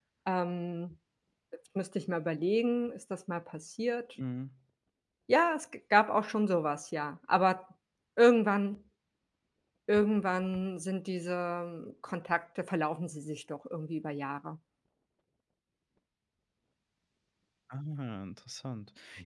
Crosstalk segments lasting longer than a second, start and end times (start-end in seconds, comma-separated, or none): none